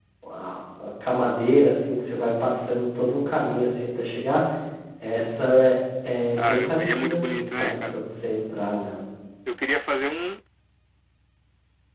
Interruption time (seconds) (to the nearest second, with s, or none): 6 s